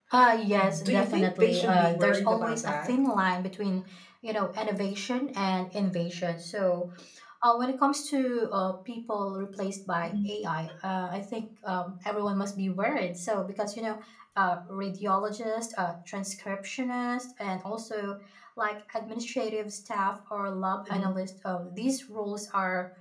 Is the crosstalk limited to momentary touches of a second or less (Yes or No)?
No